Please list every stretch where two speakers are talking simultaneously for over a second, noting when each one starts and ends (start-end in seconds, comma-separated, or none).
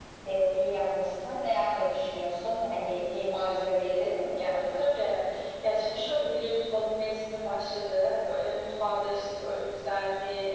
none